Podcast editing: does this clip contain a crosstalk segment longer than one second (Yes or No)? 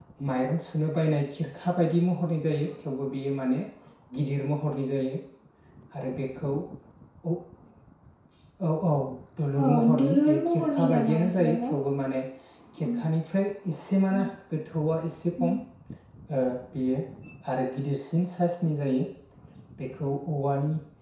Yes